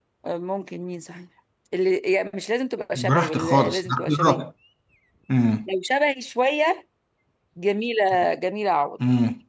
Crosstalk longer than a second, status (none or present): present